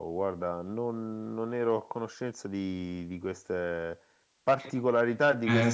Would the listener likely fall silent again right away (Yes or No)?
No